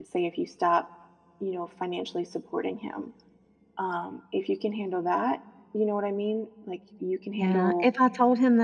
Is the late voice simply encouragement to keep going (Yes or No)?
No